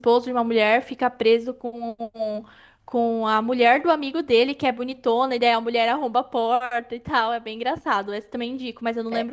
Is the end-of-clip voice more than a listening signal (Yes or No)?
Yes